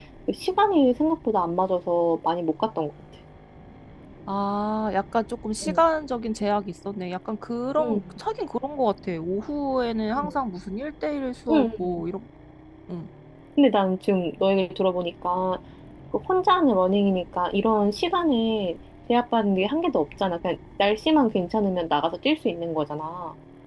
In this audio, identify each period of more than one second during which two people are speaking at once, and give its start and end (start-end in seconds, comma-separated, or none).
none